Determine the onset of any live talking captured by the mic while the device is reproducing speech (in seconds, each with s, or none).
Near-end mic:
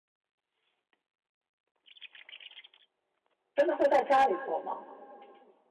3.6 s